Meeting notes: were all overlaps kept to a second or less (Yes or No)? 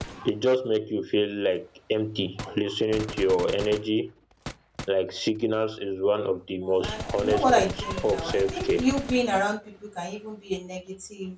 No